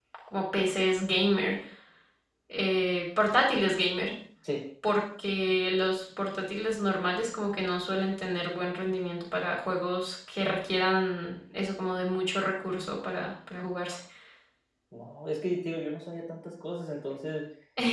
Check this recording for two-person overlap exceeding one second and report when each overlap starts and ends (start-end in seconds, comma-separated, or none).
none